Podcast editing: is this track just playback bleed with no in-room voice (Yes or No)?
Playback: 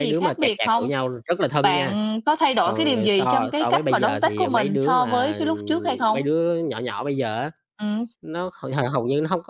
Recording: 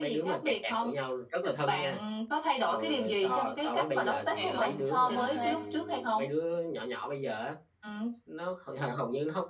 No